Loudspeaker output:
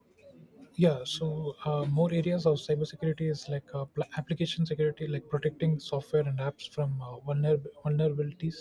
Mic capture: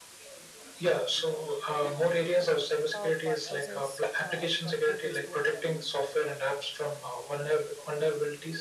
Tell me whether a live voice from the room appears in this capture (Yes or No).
Yes